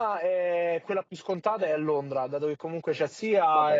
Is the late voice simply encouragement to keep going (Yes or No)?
Yes